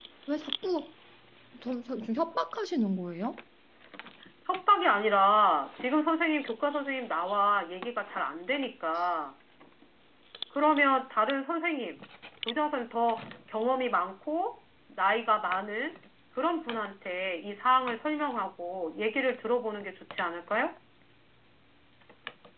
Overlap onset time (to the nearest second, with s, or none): none